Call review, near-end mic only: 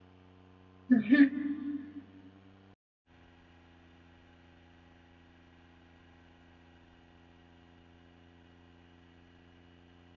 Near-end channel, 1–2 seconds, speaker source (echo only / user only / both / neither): user only